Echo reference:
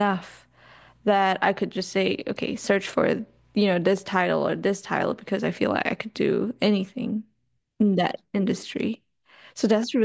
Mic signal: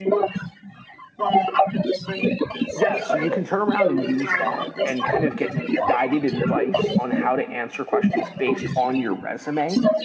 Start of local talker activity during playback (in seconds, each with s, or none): 2.8 s